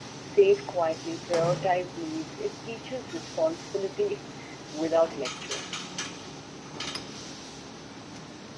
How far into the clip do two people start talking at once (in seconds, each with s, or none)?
none